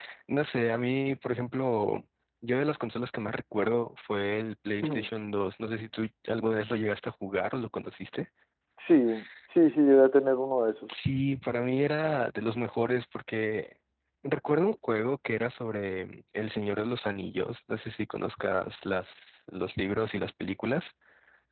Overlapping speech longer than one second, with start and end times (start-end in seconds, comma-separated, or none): none